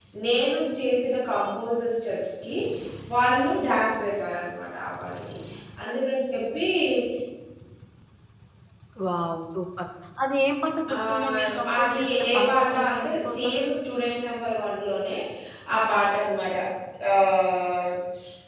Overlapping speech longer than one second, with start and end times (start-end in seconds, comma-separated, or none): 11.0-13.5